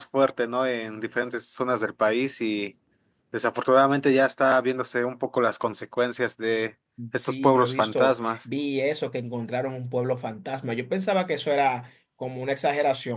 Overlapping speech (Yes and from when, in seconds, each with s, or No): Yes, from 7.0 s